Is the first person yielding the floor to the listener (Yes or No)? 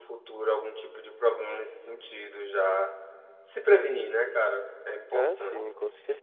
Yes